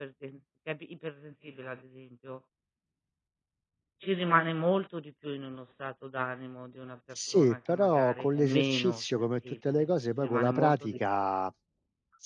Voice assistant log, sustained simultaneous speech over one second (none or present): present